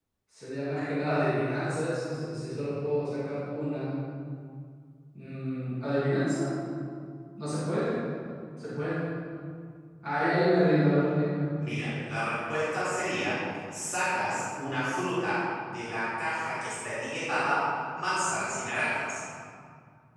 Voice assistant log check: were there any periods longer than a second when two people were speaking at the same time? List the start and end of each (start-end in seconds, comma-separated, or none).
none